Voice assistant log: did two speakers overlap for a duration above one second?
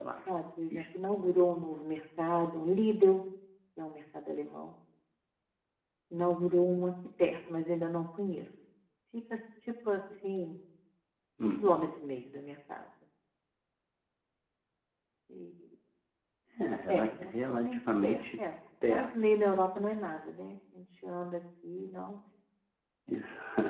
Yes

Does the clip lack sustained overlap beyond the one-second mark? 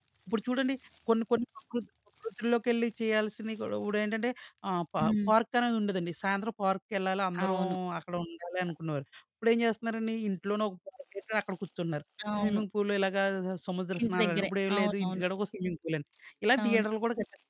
No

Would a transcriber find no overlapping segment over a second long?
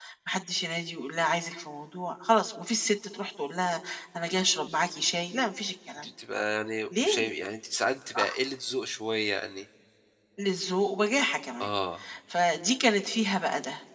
Yes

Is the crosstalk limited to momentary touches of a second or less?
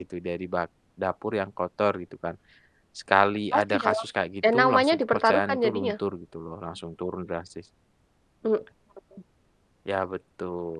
No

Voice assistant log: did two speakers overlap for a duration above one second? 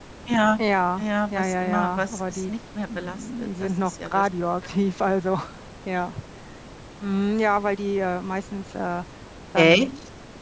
Yes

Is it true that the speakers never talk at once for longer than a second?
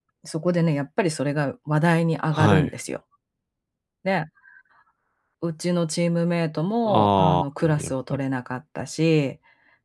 No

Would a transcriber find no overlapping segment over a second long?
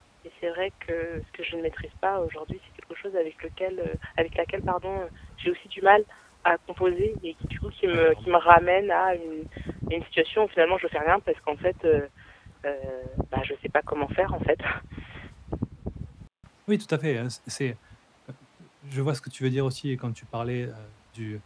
Yes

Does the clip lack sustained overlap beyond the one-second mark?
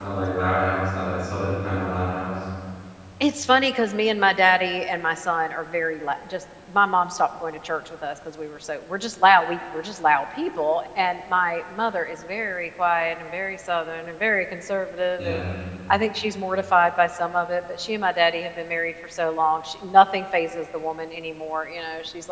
Yes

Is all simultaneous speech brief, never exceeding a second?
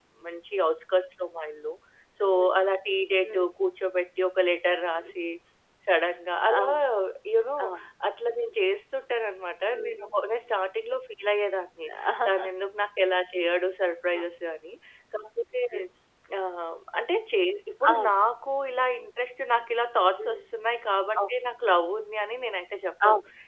Yes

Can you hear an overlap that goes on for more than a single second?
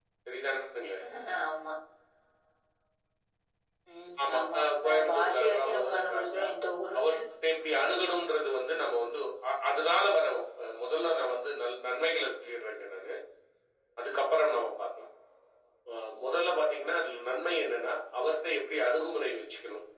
Yes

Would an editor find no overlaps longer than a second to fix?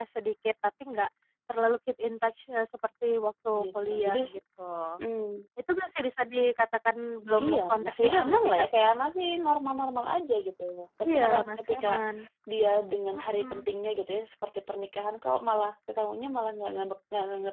No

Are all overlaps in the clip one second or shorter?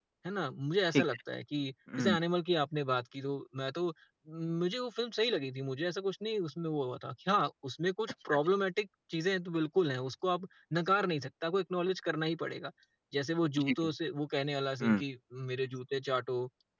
Yes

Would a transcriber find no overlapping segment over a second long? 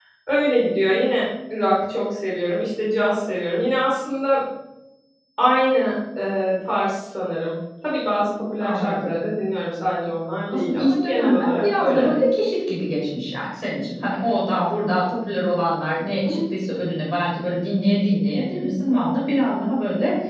No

